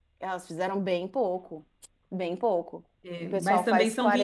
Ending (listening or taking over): taking over